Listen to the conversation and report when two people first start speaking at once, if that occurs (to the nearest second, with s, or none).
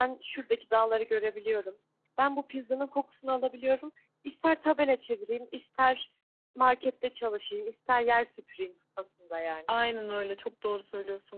none